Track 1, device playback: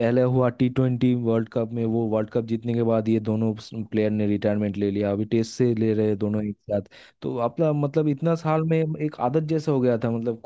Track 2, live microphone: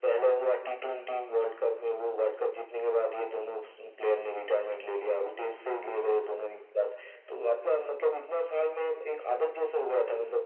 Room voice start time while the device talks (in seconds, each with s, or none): none